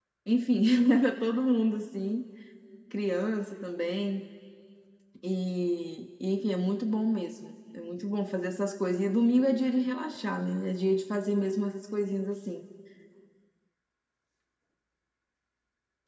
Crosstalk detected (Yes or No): No